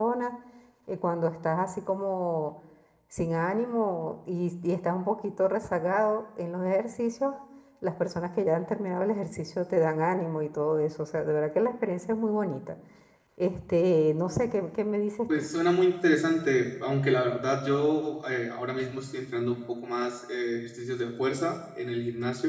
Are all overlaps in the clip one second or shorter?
Yes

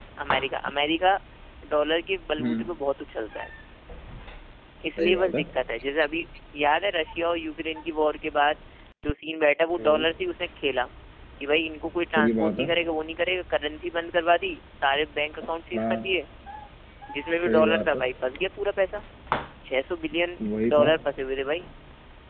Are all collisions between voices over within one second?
Yes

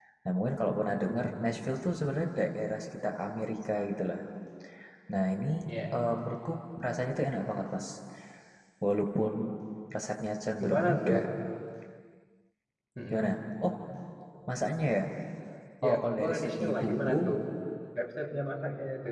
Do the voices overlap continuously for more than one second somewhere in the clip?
Yes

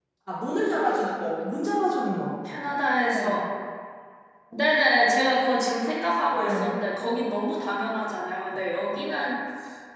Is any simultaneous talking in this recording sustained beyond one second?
No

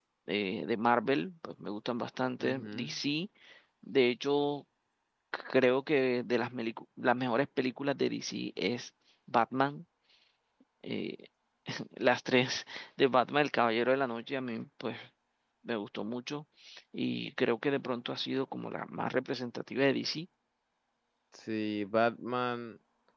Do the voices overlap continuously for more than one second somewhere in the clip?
No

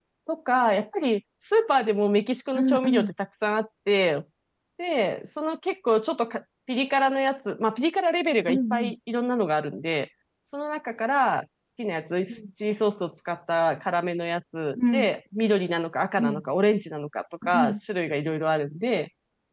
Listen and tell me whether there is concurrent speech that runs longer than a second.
No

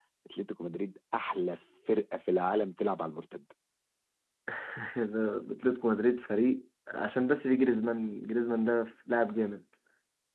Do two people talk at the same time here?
No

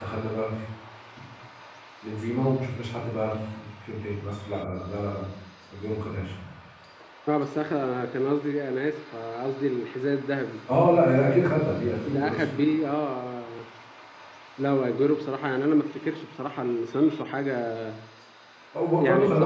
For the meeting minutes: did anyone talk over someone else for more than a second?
No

